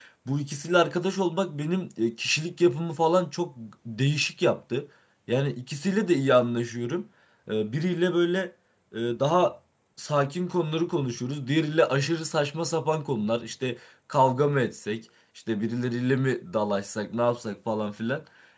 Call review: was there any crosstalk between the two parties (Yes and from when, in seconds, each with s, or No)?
No